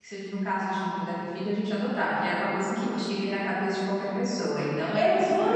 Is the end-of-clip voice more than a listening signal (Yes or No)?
Yes